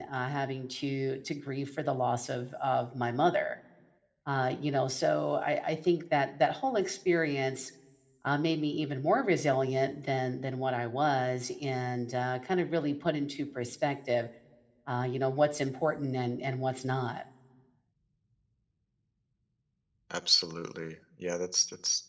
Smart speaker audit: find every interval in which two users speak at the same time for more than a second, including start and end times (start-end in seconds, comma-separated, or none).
none